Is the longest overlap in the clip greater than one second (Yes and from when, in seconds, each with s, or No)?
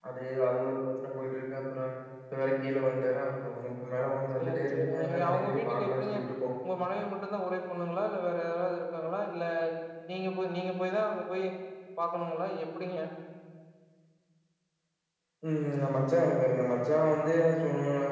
Yes, from 4.3 s